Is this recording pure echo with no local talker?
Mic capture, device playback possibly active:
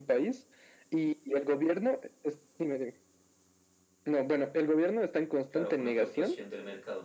No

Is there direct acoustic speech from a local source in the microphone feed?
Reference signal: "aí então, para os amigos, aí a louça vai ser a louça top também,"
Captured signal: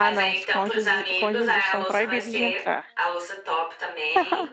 Yes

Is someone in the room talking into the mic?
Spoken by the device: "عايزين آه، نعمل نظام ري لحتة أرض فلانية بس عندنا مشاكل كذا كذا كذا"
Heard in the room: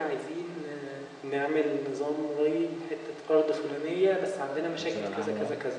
Yes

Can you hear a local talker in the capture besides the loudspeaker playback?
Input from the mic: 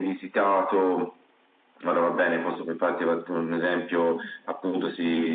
No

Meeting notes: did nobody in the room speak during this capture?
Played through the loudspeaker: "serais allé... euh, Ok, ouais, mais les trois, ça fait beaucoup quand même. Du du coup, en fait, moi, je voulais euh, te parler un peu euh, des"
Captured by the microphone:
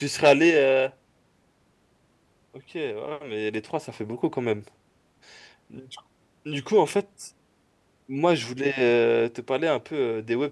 Yes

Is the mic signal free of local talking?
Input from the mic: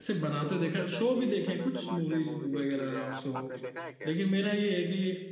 No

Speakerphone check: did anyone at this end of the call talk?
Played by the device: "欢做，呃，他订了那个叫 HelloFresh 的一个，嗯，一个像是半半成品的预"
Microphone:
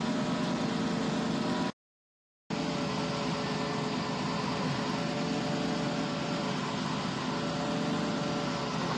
No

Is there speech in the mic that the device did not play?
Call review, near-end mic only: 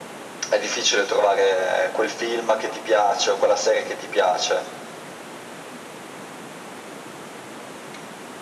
No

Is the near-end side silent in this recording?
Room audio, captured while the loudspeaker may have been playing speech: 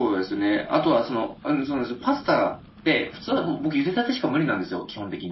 Yes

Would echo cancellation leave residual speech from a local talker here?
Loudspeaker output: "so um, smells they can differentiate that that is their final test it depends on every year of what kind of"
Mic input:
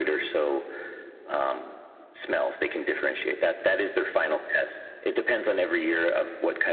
No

